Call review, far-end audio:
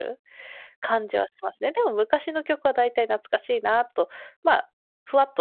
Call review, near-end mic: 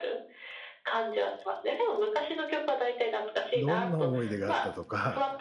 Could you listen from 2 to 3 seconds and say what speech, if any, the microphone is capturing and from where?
echo only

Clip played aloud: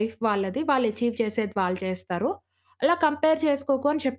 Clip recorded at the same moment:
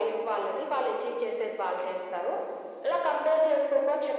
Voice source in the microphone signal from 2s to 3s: echo only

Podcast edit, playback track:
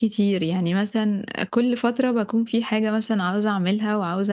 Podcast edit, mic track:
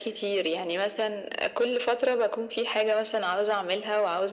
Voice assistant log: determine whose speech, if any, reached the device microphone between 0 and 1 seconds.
echo only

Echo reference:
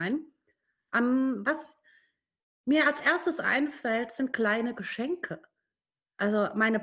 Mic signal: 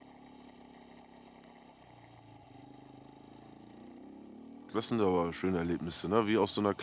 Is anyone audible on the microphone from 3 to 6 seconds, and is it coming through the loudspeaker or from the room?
user only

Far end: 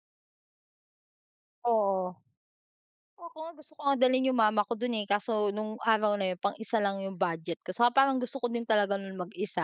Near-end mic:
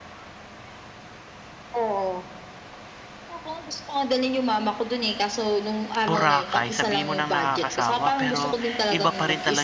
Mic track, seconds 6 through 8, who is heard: both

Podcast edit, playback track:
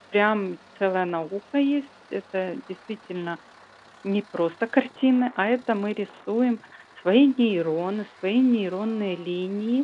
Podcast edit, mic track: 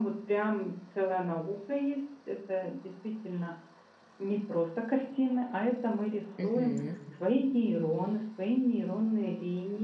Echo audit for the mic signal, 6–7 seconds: both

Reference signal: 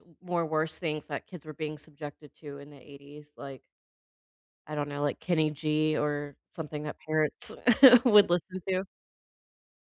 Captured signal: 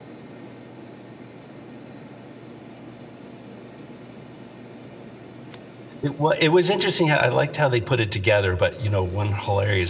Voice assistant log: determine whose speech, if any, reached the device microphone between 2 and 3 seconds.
neither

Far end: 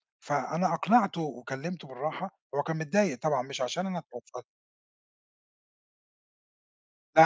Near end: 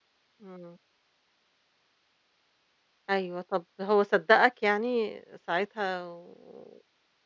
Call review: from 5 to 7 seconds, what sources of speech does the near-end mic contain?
user only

